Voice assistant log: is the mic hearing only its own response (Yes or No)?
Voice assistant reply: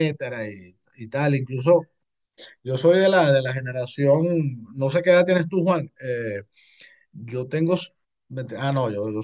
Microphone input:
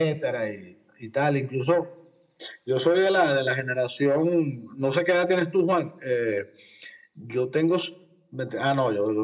Yes